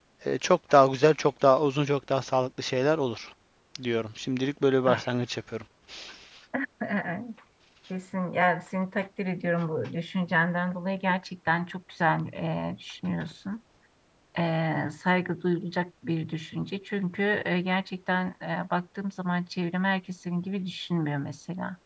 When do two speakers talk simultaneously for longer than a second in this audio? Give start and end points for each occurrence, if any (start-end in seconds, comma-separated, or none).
none